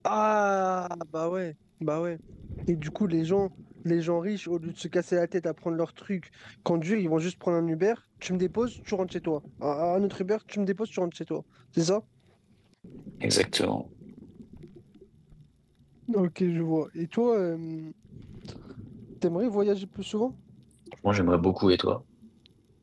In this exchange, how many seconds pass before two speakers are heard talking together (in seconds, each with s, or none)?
none